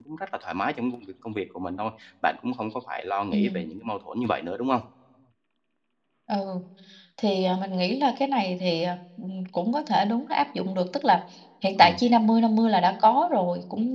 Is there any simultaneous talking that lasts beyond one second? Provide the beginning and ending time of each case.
none

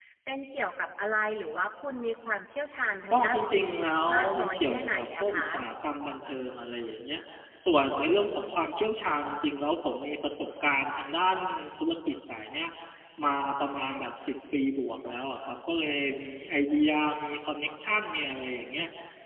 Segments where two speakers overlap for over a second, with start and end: 3.1-5.5

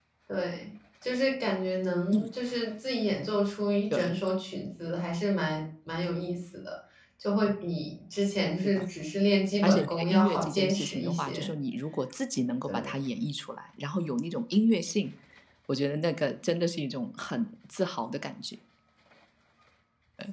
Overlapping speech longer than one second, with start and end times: 9.6-11.5

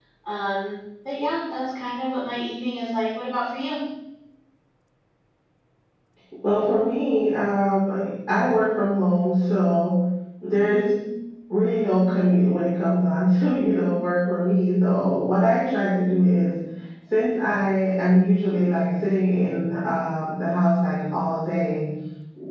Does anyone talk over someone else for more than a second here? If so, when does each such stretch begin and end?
none

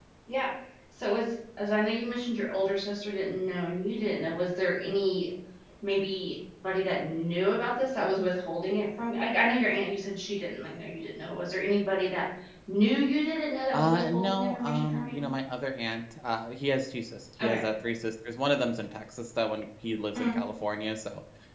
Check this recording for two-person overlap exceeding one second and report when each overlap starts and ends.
13.7-15.2

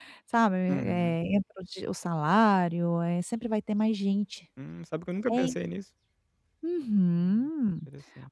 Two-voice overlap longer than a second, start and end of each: none

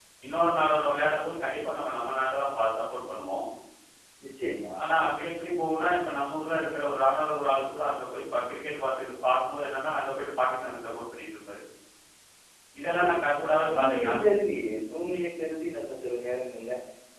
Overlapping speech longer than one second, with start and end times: 13.0-14.3

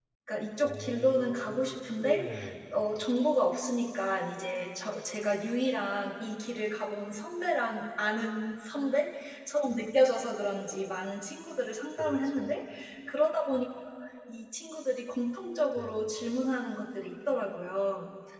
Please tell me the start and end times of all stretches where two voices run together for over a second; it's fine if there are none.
0.6-2.3

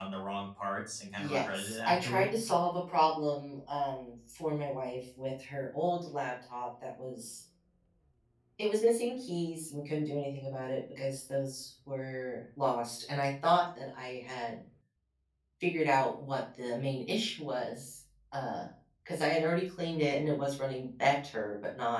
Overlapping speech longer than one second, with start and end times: 1.2-2.5

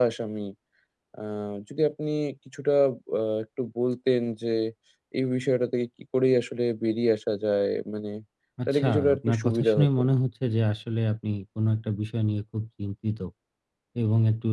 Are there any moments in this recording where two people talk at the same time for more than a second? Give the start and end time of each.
8.7-10.0

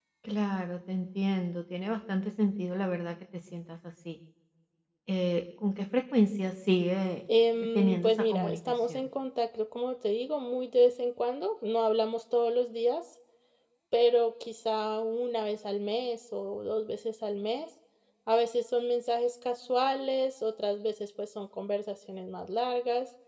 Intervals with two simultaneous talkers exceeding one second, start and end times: 7.8-9.1

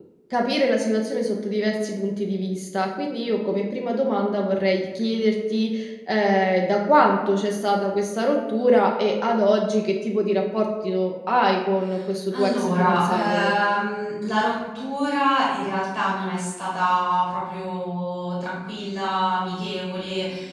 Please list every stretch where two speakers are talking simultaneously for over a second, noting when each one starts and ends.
12.3-13.5

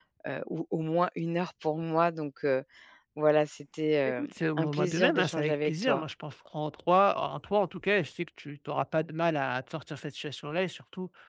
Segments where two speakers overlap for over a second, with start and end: 4.0-6.0

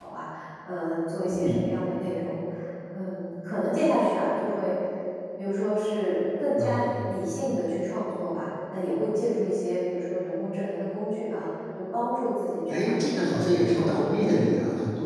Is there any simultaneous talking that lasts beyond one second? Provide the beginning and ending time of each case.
12.7-14.5

